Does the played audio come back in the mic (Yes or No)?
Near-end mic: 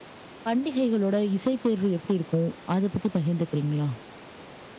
No